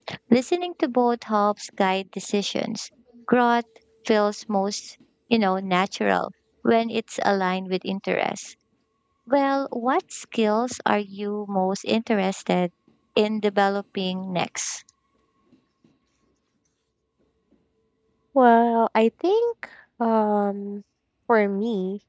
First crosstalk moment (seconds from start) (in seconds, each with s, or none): none